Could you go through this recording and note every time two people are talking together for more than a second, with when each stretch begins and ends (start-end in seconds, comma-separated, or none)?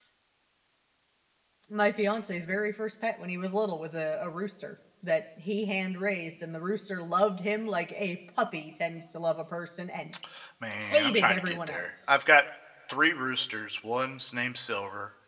10.8-12.1